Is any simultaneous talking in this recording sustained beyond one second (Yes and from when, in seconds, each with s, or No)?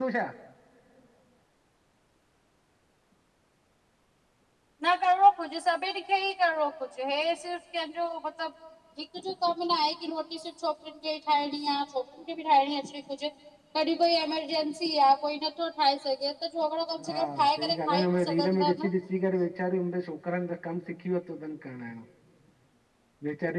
Yes, from 17.0 s